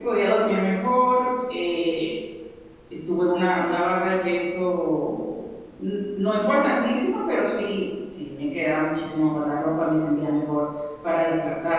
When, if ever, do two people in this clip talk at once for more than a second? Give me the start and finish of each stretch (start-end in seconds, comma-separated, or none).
none